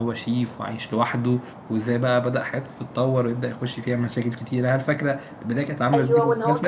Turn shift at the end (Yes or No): Yes